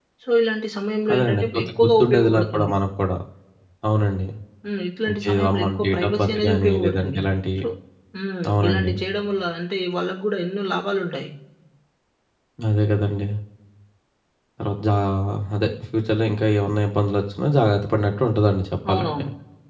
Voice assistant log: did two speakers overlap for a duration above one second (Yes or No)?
Yes